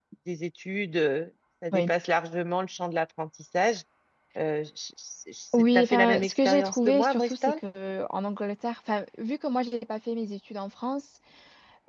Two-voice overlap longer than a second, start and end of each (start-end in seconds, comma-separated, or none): 5.6-7.6